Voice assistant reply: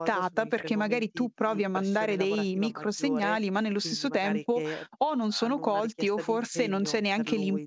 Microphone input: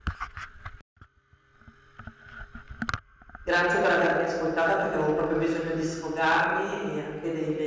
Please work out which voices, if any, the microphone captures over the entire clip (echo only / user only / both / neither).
user only